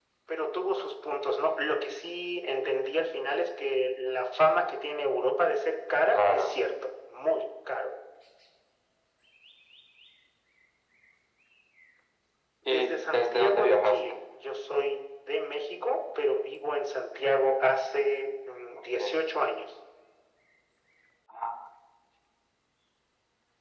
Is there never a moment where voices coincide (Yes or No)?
No